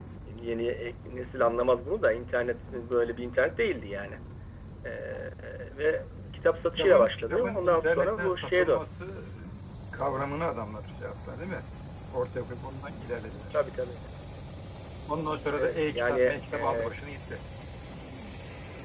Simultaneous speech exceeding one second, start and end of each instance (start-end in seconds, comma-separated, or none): 6.7-8.8, 15.6-16.9